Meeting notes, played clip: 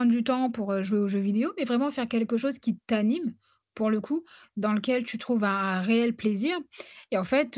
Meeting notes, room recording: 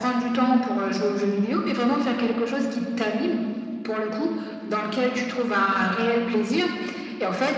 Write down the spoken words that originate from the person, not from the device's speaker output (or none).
none